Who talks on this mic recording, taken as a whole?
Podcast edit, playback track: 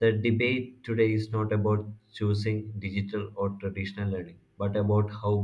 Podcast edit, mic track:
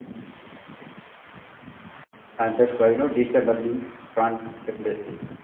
user only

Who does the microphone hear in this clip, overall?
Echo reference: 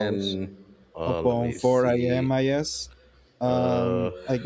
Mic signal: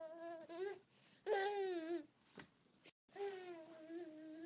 neither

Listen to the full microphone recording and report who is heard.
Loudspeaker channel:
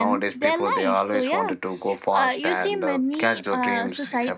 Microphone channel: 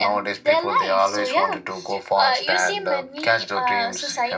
echo only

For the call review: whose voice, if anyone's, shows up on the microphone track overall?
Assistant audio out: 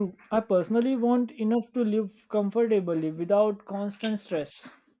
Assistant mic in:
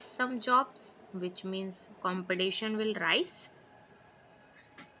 user only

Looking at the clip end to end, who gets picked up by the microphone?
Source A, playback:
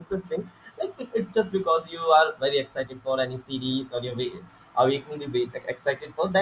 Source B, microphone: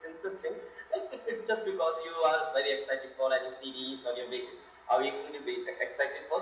echo only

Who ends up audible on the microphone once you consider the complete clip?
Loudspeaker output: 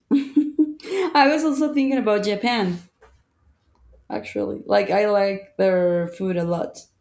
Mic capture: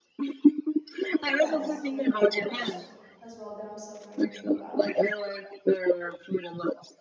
both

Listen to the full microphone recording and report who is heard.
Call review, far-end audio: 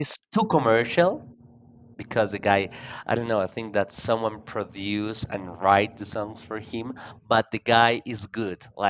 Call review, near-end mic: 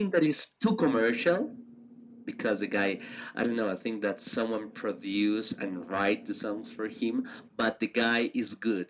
echo only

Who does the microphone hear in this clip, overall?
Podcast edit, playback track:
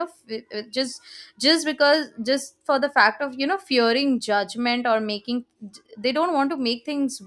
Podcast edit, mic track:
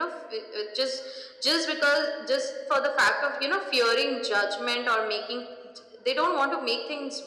echo only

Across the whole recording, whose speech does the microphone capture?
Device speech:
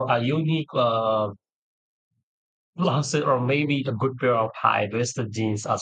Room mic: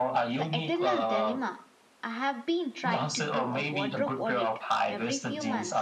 both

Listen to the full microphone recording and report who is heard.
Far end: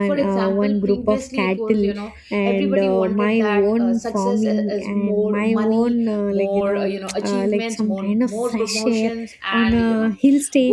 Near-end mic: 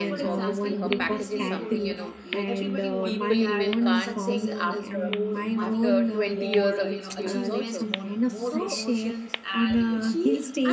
both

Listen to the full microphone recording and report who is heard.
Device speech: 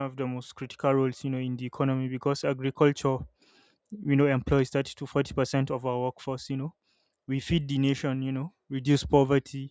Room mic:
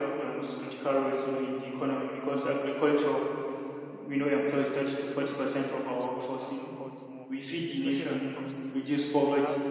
both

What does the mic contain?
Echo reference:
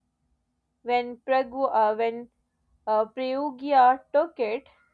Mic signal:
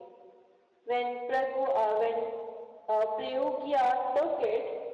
echo only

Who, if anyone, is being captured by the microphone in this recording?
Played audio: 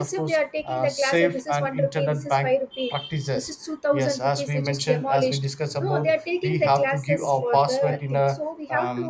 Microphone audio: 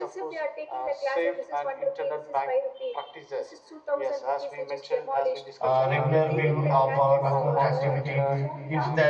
both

